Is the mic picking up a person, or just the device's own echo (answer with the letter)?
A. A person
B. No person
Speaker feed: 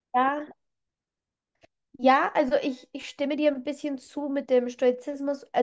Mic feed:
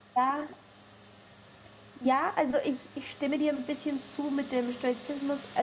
B